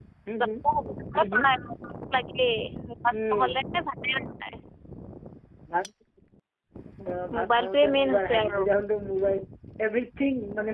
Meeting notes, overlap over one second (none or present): present